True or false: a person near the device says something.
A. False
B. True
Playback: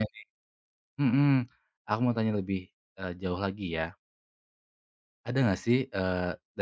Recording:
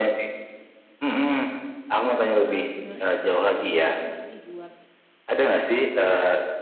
B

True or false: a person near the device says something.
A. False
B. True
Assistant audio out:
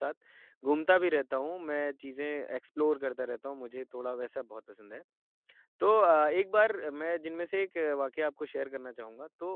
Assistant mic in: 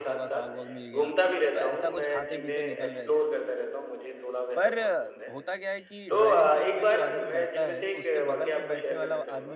B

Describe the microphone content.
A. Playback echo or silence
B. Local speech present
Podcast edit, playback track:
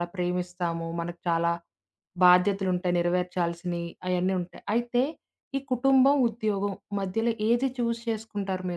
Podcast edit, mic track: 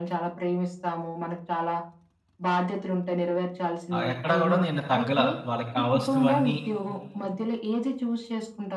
B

